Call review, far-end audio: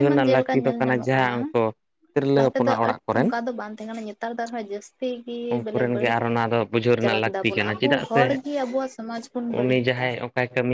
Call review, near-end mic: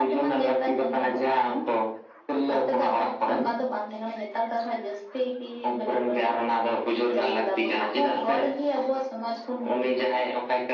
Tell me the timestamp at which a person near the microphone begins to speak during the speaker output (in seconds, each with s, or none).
none